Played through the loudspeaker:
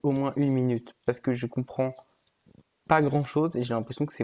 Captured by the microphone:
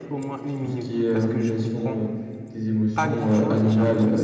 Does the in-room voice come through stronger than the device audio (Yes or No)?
Yes